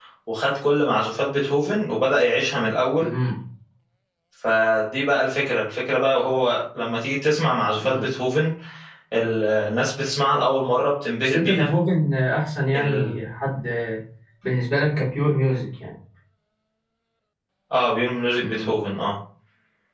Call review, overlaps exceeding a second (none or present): none